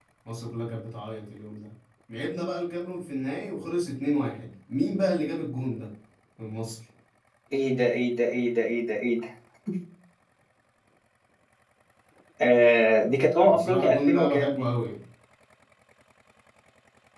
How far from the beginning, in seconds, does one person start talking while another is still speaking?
13.4 s

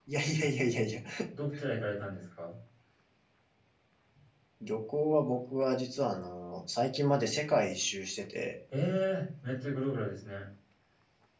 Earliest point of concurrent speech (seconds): none

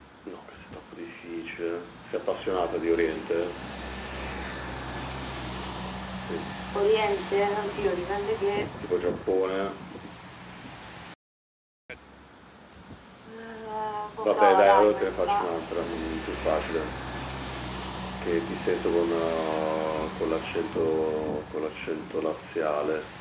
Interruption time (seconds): 14.2 s

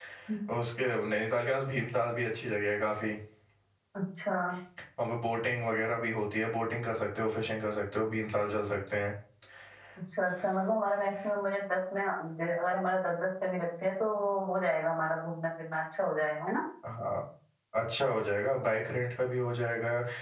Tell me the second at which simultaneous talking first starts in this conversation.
none

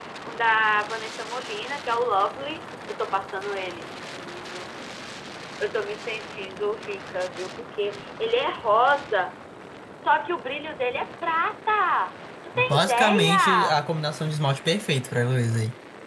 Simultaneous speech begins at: 12.6 s

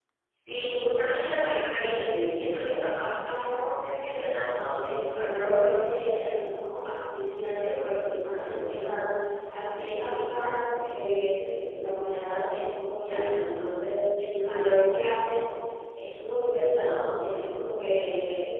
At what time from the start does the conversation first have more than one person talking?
none

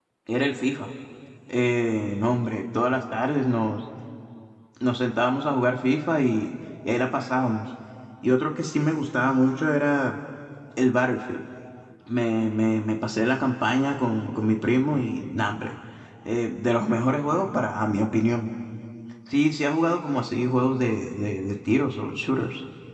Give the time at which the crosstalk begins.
none

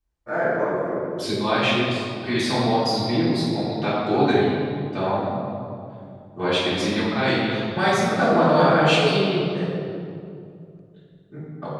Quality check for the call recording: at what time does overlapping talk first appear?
8.0 s

